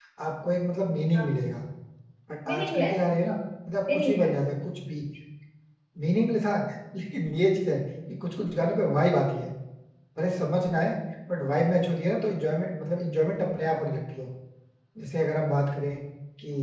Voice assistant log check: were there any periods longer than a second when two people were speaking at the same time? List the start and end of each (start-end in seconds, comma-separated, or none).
none